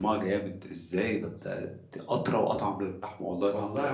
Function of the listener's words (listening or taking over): taking over